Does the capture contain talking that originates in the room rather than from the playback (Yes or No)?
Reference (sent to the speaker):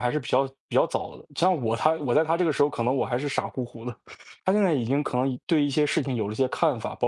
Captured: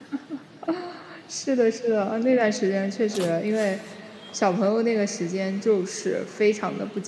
Yes